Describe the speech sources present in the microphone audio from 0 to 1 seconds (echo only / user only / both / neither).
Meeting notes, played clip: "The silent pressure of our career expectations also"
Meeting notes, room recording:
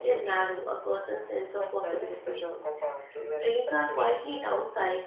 both